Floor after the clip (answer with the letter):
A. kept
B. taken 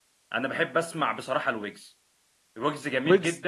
A